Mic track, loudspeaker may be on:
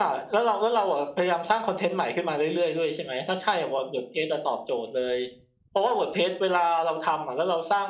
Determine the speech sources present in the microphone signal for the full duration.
echo only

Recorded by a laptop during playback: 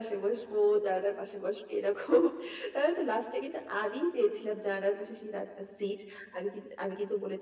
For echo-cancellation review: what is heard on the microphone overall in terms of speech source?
echo only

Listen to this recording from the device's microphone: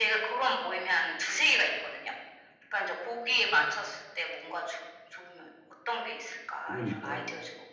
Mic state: both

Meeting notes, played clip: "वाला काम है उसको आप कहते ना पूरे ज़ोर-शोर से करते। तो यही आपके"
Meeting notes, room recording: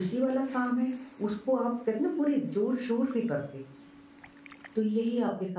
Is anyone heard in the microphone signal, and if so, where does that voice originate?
echo only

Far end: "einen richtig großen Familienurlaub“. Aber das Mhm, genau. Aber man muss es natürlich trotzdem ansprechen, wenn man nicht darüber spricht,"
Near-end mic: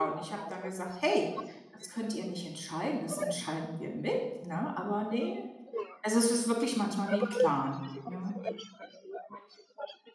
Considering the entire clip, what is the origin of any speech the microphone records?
both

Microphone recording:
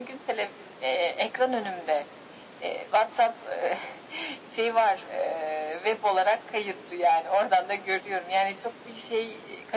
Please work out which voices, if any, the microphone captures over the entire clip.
echo only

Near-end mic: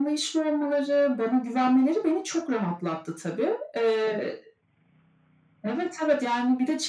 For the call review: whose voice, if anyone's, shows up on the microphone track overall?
echo only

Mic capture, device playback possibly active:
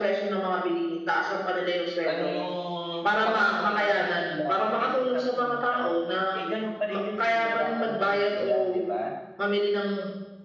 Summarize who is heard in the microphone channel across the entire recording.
both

